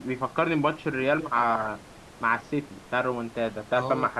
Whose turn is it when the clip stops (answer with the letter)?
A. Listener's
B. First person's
A